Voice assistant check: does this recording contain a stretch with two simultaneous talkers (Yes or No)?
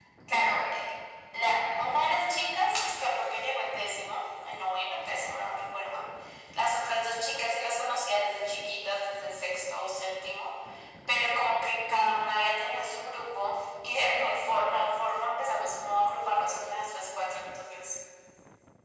No